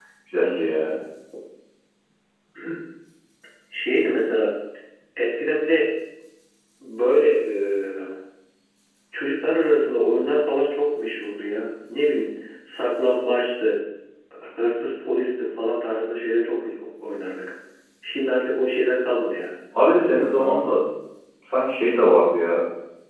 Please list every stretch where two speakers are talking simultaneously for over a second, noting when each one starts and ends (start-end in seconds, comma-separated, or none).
none